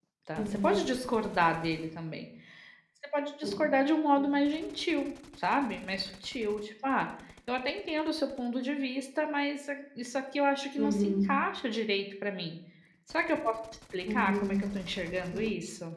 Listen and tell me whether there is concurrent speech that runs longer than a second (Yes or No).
No